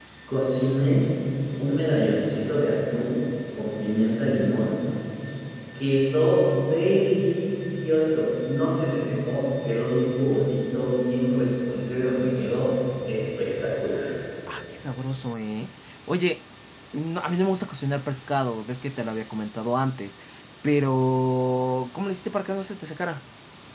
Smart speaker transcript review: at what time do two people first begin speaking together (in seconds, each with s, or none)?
none